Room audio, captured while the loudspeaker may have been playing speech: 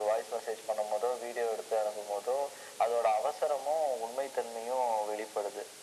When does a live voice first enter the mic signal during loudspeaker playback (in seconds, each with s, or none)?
none